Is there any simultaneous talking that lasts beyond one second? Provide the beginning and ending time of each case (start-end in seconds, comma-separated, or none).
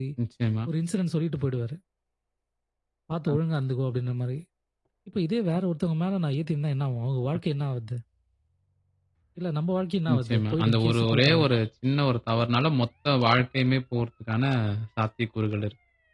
10.1-11.5